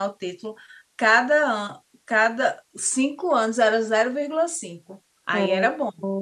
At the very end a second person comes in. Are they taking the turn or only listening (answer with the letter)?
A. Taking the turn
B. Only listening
A